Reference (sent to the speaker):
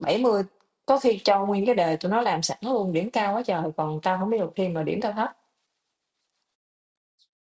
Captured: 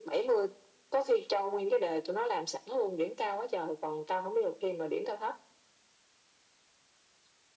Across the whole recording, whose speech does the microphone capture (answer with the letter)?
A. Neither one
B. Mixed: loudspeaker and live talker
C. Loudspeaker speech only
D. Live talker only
C